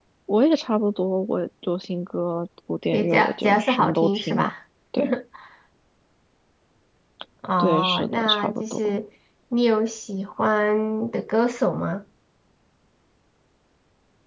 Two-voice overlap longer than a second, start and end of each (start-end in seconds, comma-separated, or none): 2.9-4.5, 7.6-9.0